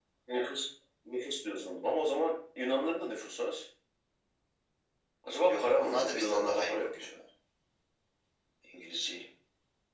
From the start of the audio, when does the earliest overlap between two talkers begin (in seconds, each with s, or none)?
5.5 s